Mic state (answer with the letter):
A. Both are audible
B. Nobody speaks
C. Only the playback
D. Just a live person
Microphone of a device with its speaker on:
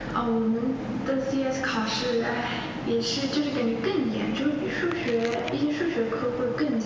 C